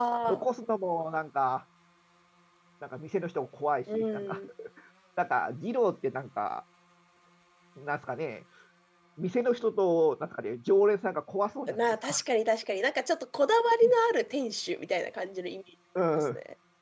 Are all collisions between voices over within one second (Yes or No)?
Yes